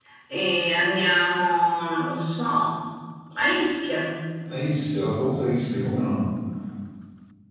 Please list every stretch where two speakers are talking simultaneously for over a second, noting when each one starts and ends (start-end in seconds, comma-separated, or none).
none